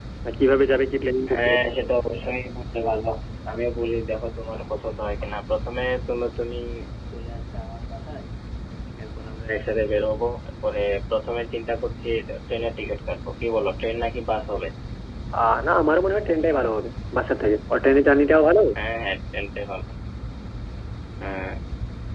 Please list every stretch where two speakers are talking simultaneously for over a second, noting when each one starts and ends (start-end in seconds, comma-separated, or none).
none